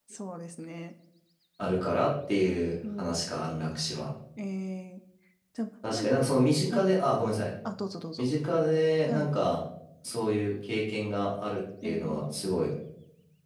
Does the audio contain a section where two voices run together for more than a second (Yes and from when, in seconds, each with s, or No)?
No